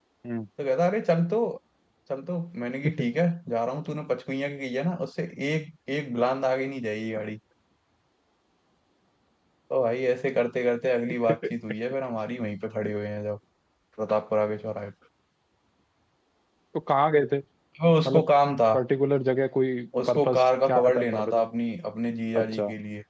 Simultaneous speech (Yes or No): Yes